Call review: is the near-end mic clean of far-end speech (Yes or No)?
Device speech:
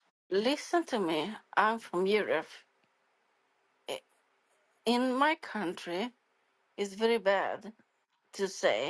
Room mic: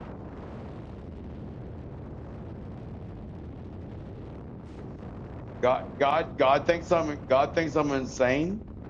Yes